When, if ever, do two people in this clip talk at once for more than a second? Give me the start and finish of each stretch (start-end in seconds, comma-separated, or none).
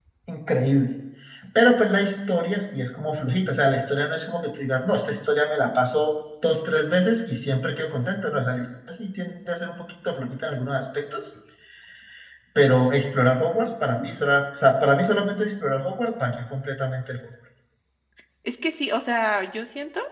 none